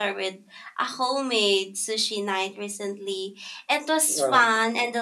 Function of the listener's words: listening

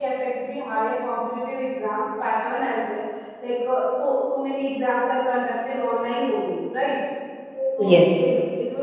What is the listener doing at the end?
listening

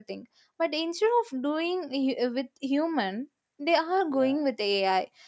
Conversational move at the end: listening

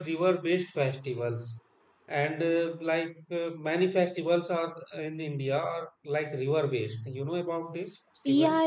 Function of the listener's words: taking over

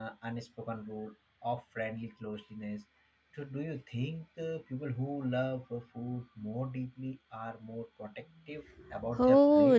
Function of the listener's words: taking over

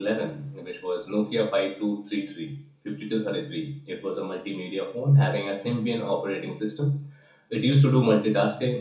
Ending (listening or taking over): listening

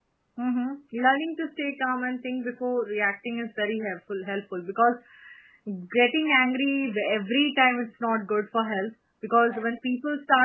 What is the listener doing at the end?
listening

